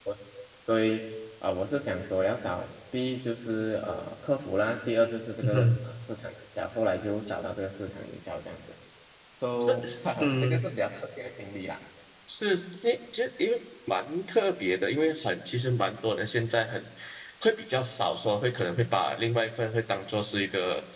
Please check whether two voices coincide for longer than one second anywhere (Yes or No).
No